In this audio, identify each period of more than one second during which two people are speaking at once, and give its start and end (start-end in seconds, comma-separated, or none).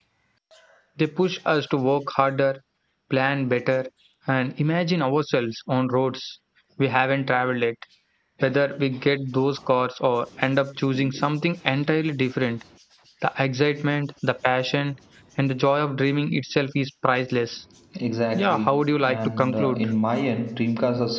18.4-19.8